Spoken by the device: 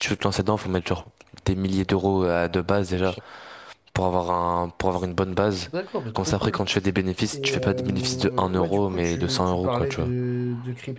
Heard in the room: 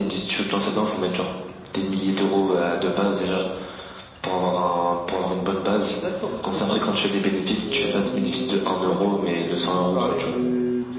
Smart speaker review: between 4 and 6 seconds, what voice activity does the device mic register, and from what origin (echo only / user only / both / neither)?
echo only